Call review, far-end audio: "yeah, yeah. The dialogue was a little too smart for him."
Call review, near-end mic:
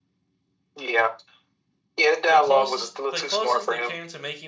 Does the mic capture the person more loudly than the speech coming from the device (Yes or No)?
No